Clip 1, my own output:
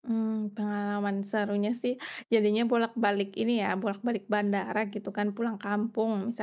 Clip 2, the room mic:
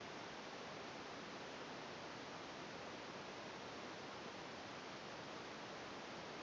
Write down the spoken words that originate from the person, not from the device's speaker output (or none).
none